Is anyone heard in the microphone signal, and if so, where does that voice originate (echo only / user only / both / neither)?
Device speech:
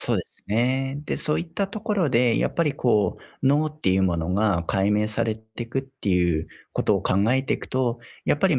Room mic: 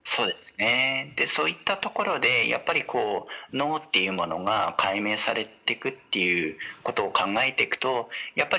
echo only